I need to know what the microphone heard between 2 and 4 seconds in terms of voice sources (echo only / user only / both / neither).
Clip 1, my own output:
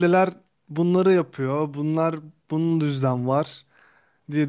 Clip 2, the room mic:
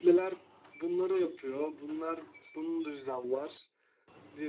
echo only